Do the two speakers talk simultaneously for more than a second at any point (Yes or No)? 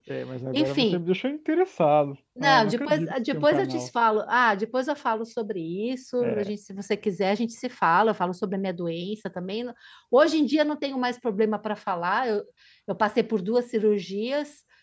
Yes